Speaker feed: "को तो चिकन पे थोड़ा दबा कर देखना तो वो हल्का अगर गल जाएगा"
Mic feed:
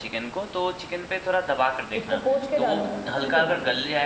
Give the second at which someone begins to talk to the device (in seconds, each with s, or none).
2.0 s